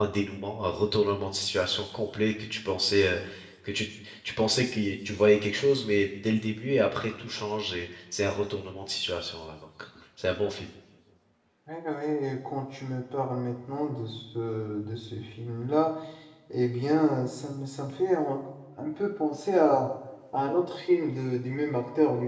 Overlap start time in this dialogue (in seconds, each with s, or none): none